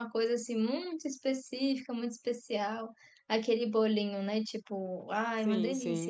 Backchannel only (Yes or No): Yes